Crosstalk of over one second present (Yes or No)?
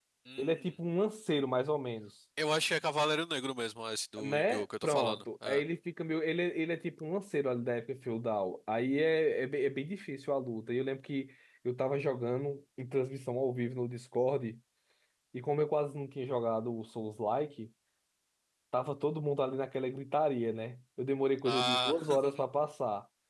Yes